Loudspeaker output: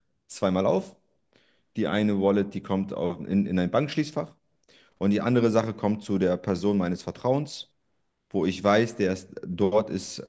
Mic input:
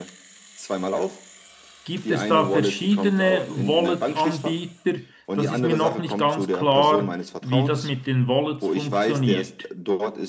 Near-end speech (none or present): present